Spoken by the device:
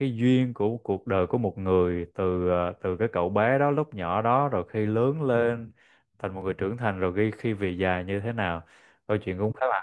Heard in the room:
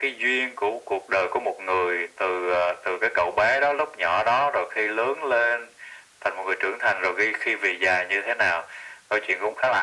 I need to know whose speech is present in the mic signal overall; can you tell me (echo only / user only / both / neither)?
echo only